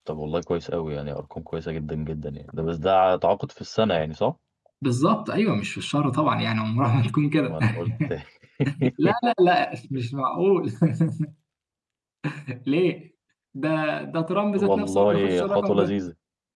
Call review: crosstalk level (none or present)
present